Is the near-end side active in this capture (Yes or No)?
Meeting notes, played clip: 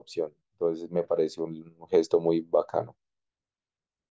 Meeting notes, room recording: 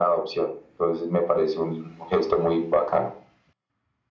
No